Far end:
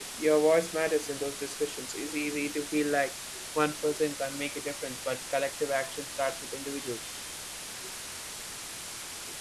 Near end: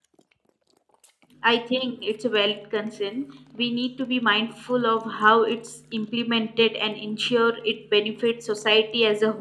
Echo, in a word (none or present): none